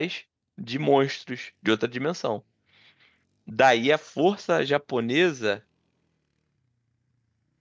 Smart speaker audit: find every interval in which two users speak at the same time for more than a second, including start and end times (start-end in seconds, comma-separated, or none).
none